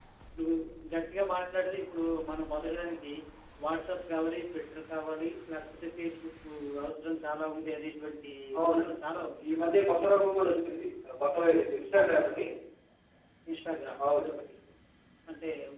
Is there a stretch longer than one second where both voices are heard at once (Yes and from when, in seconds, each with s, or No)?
No